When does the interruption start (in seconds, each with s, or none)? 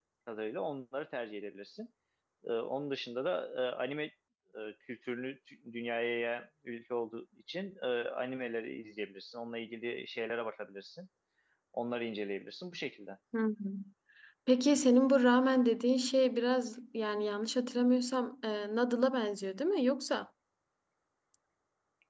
none